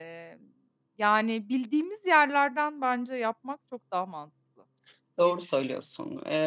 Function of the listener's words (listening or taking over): taking over